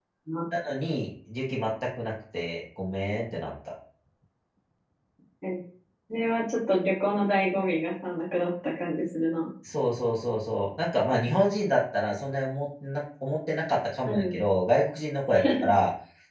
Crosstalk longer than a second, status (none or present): none